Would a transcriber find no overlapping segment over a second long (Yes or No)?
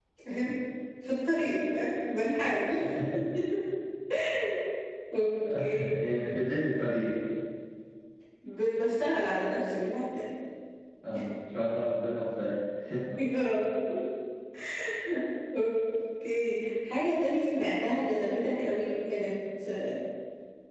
Yes